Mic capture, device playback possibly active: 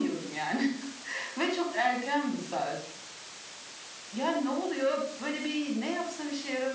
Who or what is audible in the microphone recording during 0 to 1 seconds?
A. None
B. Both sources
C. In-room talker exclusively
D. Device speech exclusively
D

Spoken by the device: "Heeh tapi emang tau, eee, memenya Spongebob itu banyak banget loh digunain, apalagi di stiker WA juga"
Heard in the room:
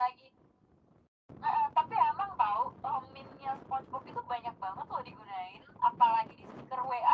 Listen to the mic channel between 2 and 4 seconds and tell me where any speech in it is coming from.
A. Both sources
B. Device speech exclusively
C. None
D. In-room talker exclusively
B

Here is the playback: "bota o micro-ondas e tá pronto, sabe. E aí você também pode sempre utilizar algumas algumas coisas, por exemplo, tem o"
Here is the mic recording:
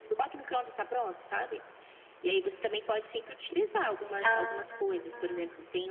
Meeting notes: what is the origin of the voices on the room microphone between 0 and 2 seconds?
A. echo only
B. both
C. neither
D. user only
A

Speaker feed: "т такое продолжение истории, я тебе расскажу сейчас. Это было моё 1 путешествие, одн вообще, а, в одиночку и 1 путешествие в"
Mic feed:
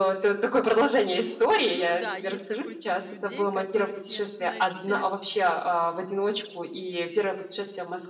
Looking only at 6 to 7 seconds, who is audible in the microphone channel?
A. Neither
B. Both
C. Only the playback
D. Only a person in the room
C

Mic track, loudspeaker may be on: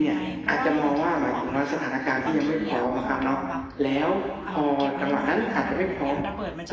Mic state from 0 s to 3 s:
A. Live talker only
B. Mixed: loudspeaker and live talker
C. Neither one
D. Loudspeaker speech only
B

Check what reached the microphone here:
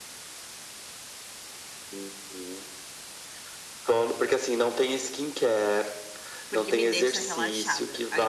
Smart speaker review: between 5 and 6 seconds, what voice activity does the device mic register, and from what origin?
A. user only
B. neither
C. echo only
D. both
C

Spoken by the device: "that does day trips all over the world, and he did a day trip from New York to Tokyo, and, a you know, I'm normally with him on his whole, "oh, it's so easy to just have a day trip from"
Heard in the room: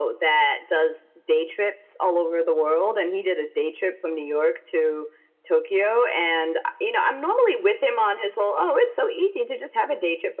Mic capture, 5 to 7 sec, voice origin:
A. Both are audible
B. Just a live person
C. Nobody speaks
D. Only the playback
D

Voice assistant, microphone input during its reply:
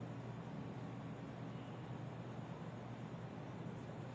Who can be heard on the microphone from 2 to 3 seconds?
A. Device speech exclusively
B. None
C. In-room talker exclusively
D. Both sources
B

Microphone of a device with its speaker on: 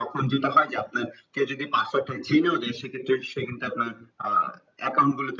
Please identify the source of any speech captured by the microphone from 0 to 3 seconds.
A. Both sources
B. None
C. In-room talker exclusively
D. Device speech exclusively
D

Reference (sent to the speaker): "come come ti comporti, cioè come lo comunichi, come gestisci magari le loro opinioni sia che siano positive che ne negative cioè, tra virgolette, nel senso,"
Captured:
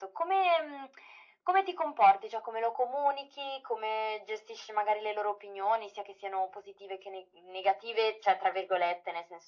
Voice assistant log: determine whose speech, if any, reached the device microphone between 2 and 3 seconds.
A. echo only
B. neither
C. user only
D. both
A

